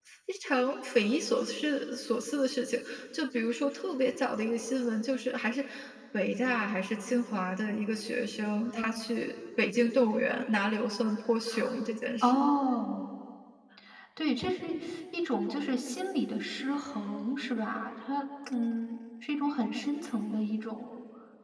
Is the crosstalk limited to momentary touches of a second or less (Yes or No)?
Yes